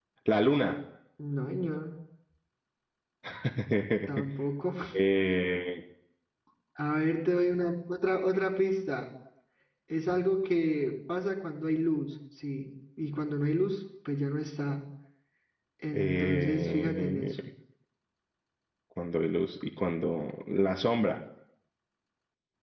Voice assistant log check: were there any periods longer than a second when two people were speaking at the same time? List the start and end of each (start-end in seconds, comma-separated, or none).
15.9-17.3